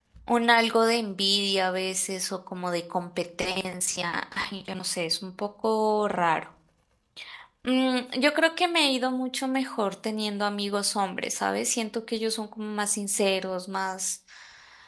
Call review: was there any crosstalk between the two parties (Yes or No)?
No